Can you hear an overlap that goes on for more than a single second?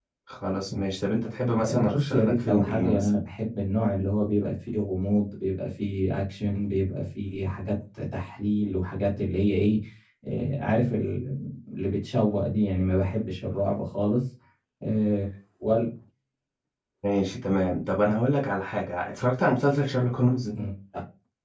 Yes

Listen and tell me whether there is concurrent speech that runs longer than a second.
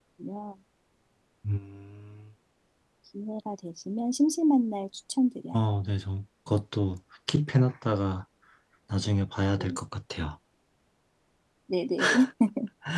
No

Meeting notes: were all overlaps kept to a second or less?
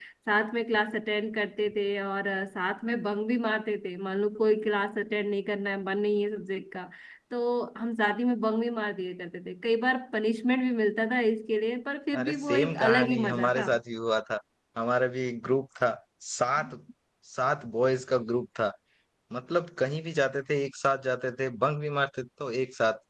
No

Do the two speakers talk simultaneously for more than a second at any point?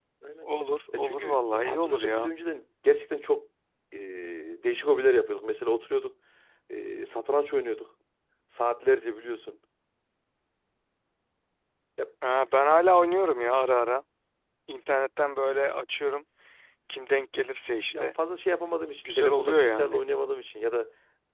Yes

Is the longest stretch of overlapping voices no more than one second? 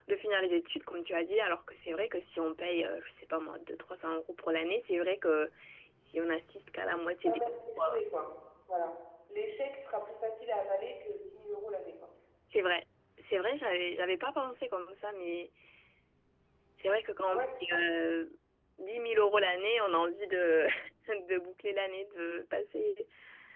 Yes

